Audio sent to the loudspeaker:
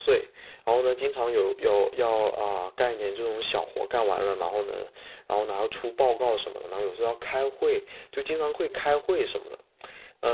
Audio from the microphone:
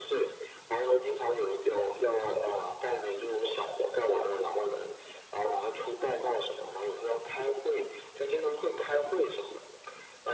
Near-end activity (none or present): none